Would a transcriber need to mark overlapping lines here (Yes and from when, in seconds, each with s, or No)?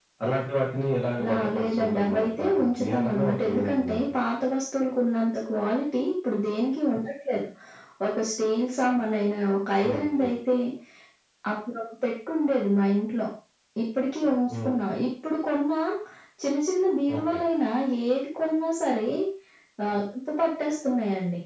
Yes, from 1.2 s